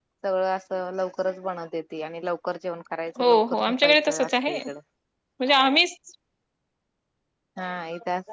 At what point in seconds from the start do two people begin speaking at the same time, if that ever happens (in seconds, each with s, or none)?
3.2 s